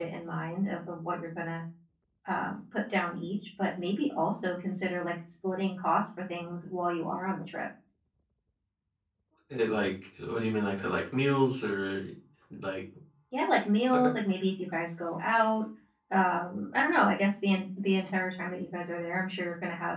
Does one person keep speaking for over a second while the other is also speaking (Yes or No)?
No